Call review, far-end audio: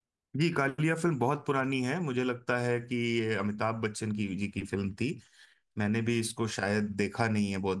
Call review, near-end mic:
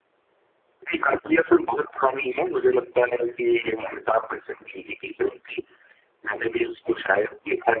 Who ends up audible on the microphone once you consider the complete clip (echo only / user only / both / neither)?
echo only